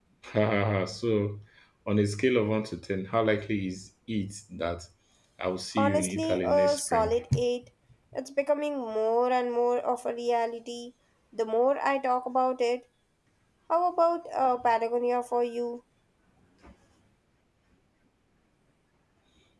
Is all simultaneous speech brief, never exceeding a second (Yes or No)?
No